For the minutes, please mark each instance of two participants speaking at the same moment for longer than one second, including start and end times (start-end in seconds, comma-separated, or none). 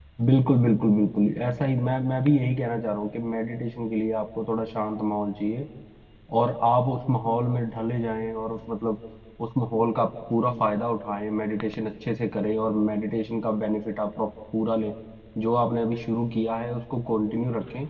none